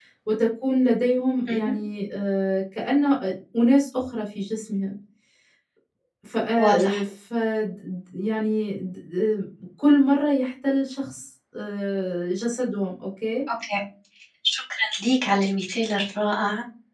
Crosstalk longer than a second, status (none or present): none